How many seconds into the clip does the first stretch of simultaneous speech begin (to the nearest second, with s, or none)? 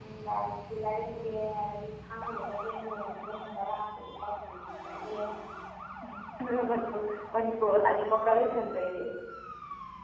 none